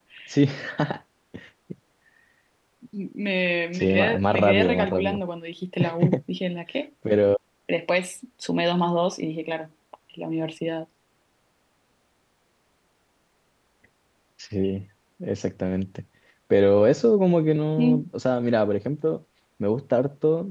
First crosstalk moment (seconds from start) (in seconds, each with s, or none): 3.7 s